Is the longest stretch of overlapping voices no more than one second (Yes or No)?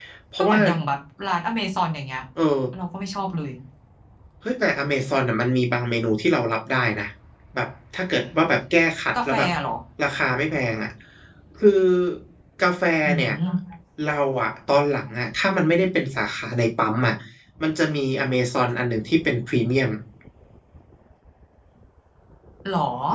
Yes